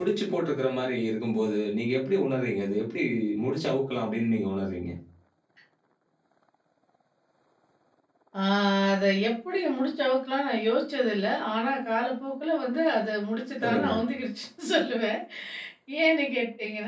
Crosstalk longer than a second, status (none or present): none